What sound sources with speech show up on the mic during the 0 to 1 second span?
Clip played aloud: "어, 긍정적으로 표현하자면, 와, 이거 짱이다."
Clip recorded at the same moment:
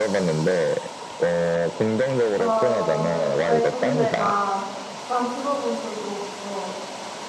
echo only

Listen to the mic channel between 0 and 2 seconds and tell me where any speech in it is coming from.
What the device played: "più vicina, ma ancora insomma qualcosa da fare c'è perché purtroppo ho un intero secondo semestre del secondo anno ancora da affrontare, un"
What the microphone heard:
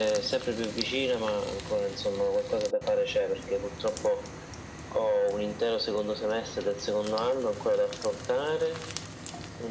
echo only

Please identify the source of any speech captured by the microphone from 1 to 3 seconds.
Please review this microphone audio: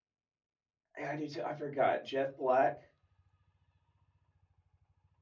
user only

